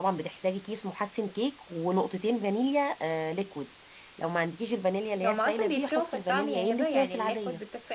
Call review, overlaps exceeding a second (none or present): present